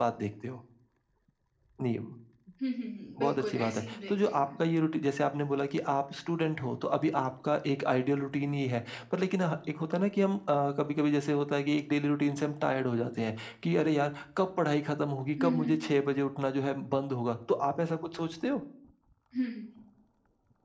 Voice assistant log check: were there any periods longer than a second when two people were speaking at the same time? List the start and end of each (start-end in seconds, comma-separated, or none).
3.2-4.5